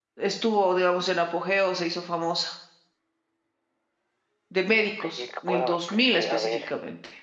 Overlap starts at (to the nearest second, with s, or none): 5 s